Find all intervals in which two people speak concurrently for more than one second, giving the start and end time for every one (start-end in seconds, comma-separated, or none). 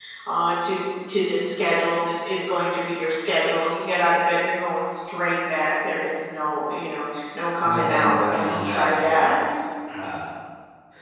7.7-9.3